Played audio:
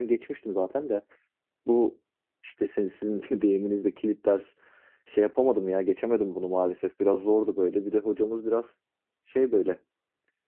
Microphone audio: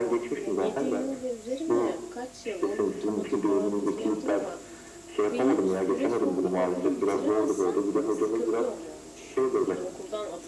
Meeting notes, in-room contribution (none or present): present